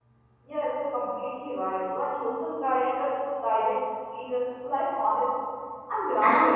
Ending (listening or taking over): taking over